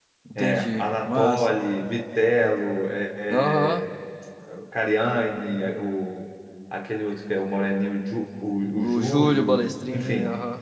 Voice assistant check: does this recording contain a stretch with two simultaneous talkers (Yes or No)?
Yes